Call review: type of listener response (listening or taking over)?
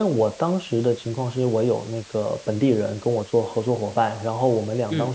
listening